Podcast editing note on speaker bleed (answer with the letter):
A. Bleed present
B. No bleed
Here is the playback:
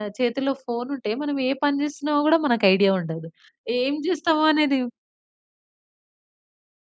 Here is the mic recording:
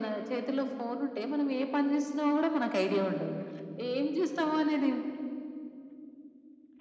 A